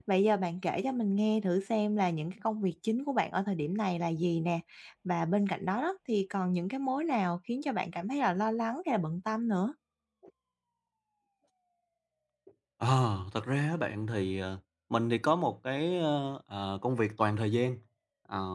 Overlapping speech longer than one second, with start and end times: none

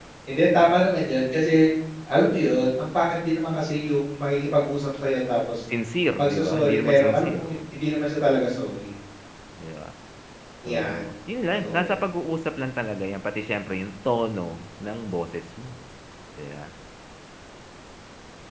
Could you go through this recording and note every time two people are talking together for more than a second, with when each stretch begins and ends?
6.2-7.5

